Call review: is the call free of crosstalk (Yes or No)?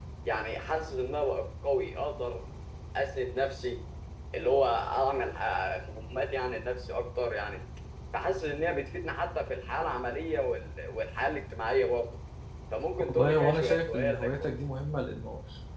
No